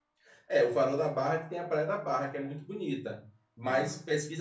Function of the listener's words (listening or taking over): listening